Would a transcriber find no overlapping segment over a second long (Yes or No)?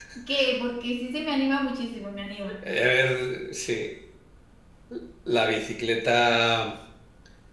Yes